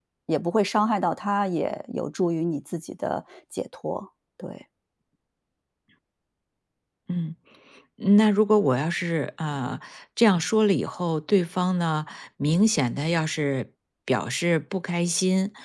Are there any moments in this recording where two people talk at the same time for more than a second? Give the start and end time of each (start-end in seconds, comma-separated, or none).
none